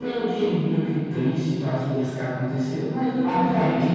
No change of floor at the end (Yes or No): No